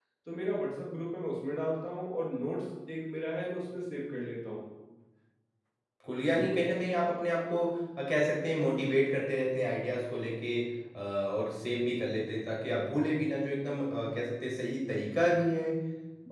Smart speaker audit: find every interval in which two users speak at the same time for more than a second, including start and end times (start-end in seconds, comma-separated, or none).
none